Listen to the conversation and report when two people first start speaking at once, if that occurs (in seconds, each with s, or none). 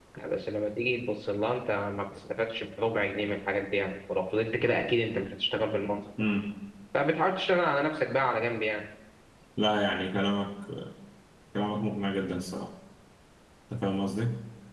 none